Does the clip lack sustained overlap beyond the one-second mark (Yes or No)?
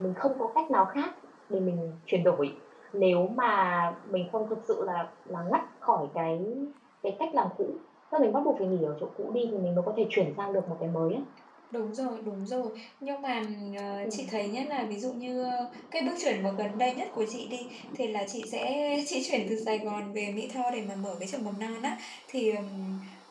Yes